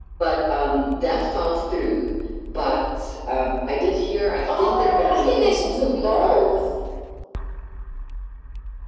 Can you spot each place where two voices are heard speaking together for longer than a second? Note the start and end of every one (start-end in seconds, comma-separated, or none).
4.6-6.6